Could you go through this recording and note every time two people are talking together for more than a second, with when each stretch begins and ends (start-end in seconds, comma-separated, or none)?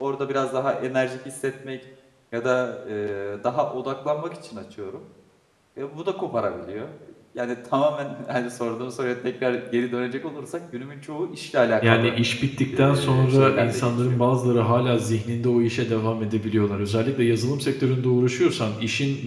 12.8-14.2